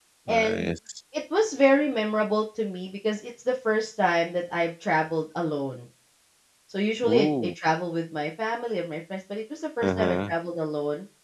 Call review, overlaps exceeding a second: none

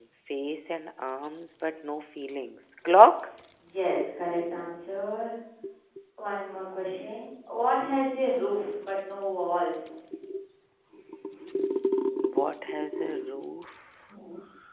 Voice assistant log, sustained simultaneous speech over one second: none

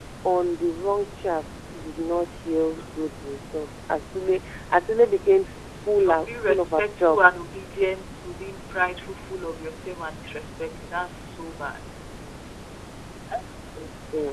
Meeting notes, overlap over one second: present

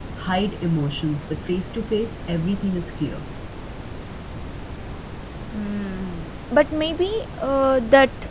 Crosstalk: none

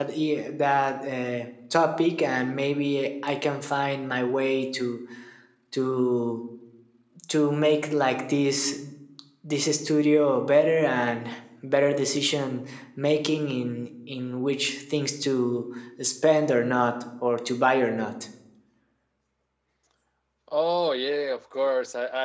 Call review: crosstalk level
none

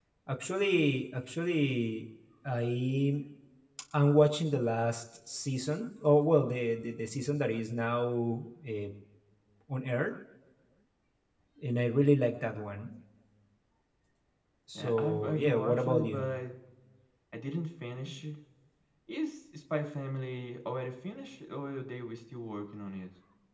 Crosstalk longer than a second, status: present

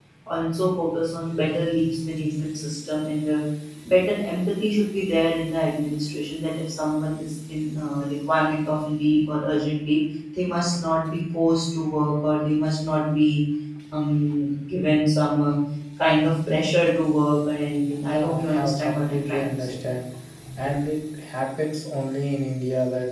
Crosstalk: present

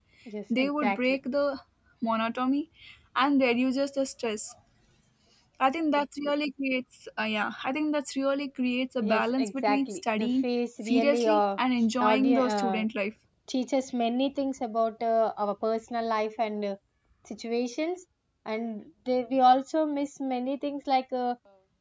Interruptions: present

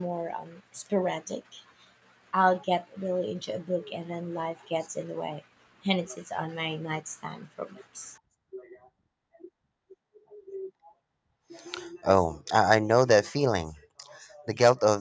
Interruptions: none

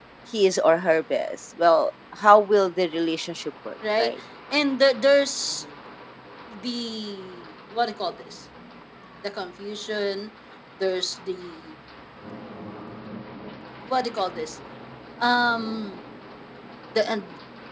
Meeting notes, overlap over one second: none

